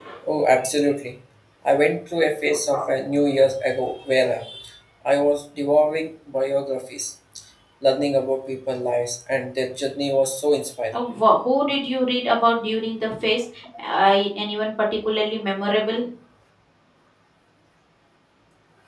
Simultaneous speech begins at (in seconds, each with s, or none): none